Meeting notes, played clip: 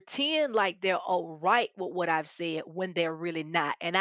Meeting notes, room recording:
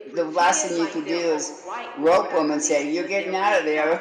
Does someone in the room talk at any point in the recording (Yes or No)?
Yes